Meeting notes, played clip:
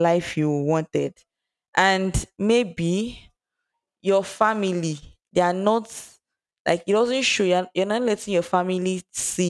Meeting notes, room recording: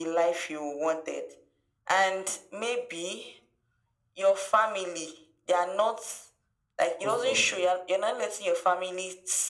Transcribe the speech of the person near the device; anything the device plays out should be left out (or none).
caused us.